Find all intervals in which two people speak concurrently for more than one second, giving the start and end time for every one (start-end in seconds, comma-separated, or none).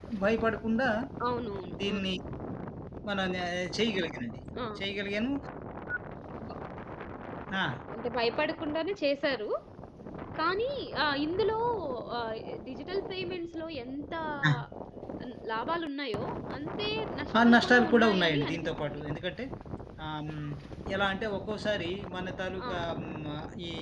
17.4-19.0